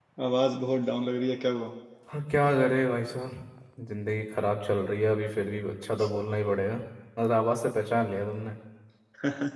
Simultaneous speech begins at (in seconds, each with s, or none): none